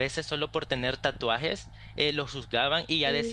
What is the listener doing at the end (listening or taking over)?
listening